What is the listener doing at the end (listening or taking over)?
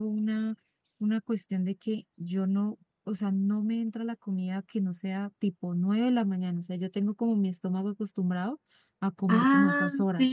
taking over